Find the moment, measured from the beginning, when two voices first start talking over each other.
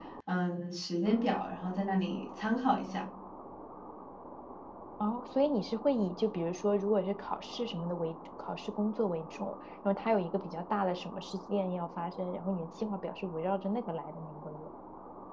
none

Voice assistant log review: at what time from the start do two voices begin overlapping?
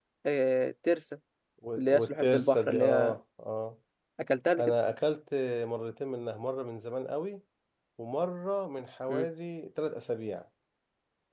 2 s

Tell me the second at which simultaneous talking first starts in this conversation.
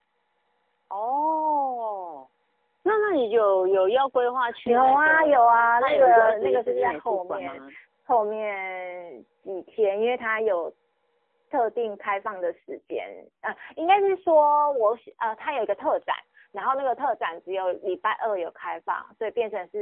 4 s

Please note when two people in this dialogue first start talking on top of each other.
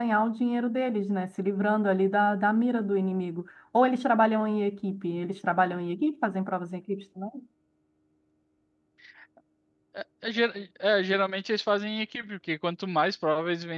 none

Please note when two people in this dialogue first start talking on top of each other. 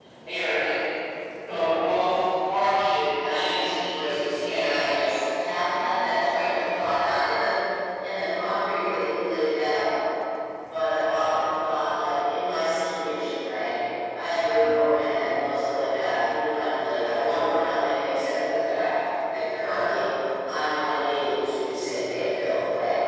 3 s

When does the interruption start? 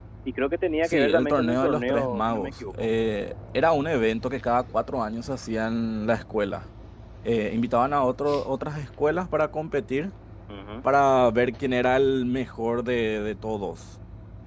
1 s

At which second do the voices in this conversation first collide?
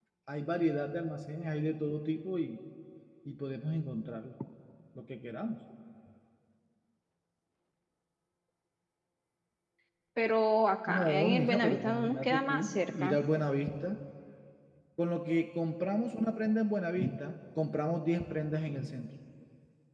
11 s

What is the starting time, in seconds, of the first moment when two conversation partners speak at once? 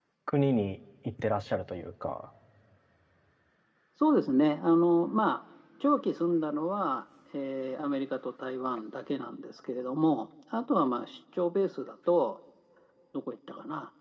none

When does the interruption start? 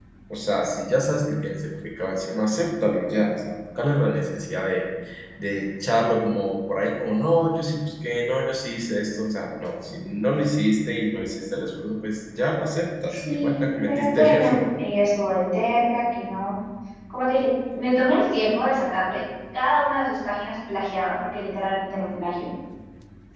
13 s

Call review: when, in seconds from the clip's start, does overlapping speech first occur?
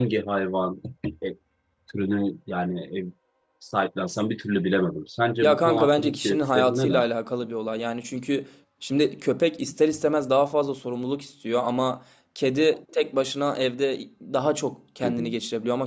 5 s

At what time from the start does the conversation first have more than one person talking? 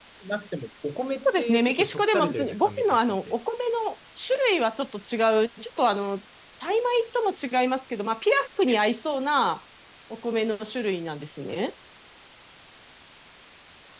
1 s

